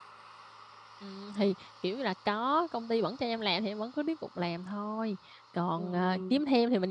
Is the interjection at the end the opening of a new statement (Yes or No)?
No